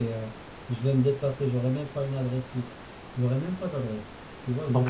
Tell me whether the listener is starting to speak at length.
No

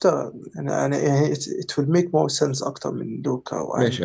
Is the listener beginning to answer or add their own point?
Yes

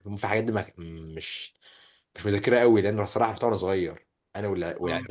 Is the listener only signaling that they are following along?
Yes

